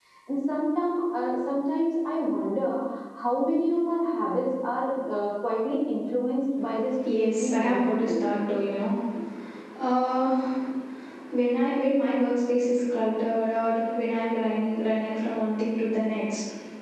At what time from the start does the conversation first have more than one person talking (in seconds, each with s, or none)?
6.9 s